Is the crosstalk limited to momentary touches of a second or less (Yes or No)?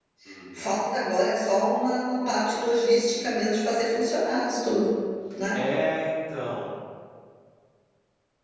Yes